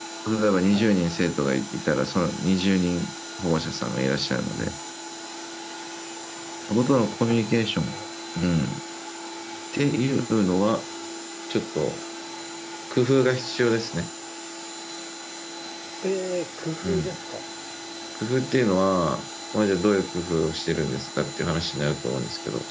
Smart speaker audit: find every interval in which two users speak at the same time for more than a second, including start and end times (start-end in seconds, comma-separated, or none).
6.7-8.0